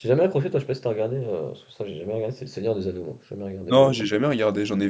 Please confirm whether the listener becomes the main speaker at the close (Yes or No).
Yes